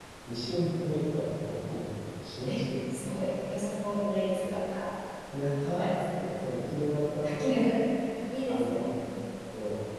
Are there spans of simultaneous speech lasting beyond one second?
No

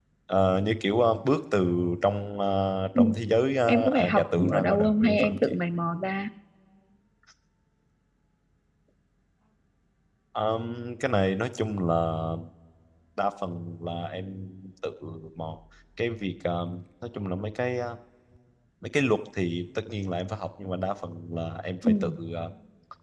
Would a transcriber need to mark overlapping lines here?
Yes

